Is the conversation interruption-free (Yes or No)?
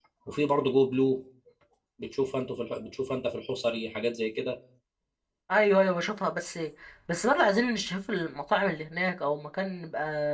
Yes